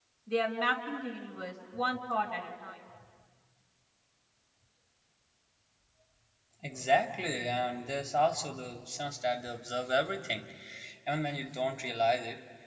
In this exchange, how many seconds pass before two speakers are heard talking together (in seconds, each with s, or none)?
none